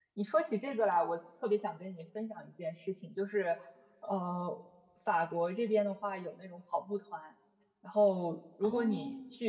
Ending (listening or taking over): listening